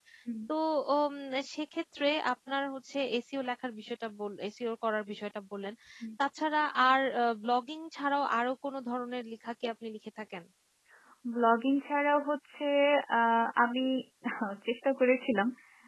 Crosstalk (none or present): none